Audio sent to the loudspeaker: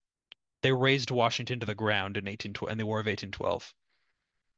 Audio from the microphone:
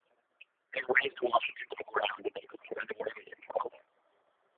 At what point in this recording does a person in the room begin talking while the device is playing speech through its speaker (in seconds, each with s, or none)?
none